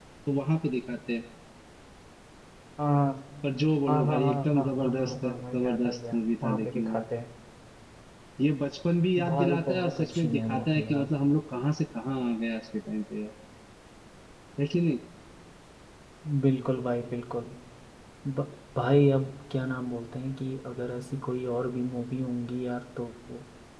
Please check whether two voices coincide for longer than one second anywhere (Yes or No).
Yes